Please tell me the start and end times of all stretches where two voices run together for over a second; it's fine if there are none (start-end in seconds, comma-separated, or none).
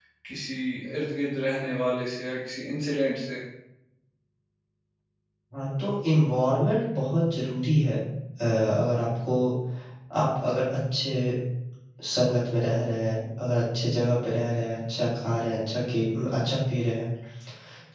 none